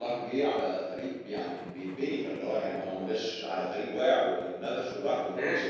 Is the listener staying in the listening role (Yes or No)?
No